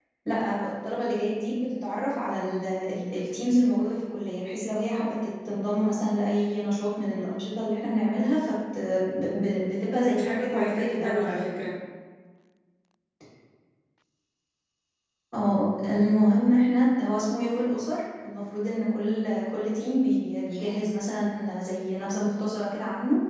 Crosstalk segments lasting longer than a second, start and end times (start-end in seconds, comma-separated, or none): 10.1-11.5